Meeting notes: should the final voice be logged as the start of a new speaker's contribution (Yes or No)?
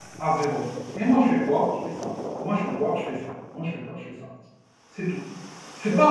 No